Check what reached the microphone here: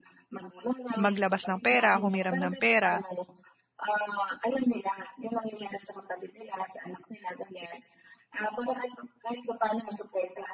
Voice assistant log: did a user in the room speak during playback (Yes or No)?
Yes